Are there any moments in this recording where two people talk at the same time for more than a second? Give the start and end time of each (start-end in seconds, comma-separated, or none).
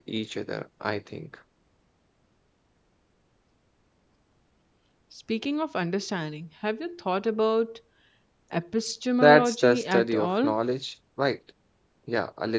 9.2-10.5